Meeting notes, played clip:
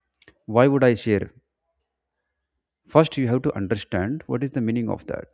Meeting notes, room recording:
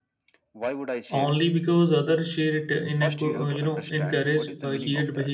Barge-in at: 1.1 s

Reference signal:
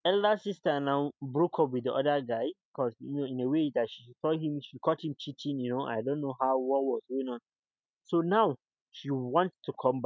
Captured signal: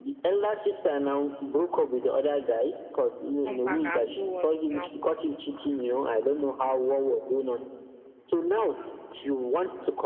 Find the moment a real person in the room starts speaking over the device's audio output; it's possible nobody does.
3.4 s

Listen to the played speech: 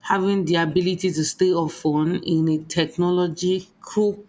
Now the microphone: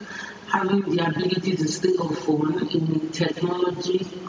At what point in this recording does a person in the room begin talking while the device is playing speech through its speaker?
none

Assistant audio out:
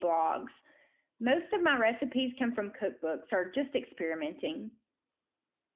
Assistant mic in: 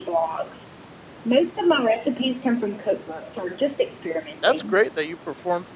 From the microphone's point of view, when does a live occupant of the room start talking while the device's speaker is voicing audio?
4.4 s

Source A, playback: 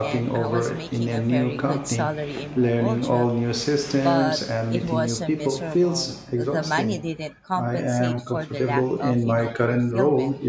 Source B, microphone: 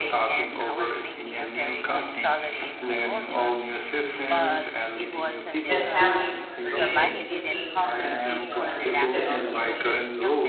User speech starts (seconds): 5.6 s

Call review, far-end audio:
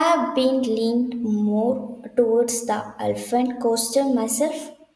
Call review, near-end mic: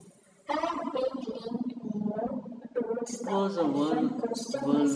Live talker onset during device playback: 3.1 s

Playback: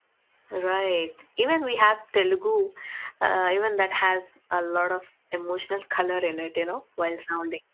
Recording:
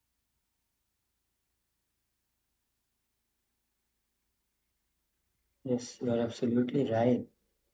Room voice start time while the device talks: 5.6 s

